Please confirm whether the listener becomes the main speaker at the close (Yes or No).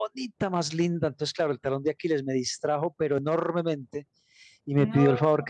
No